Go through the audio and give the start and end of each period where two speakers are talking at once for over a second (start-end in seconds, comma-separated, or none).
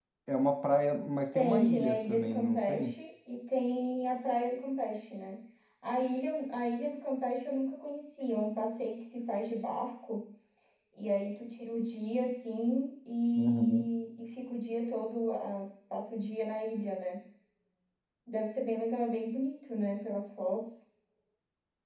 1.3-2.9